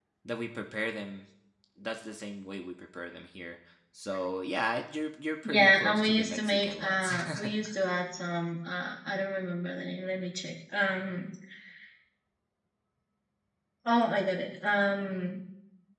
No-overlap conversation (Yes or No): No